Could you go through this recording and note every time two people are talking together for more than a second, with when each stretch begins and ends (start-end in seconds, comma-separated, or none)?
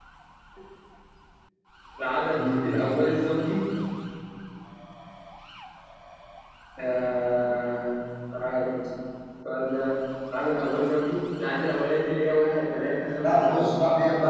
none